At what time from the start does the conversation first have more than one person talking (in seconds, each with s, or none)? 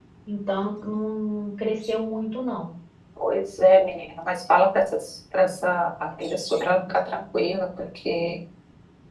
none